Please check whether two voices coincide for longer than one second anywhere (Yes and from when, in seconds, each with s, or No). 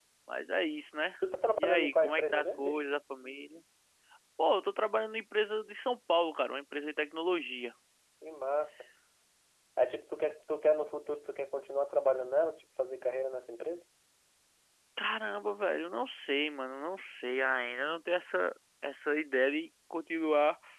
Yes, from 1.6 s